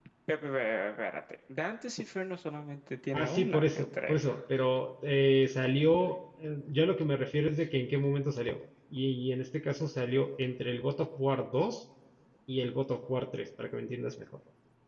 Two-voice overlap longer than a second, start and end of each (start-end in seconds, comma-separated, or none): 3.1-4.4